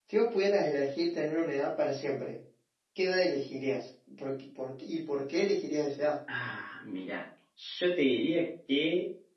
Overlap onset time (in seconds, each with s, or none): none